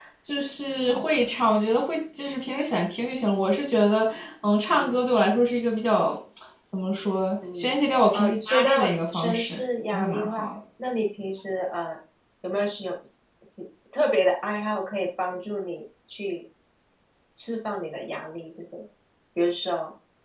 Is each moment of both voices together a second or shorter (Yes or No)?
No